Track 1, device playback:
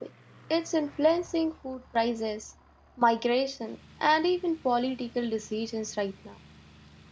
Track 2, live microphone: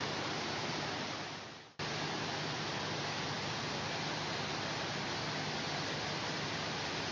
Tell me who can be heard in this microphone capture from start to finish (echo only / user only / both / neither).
neither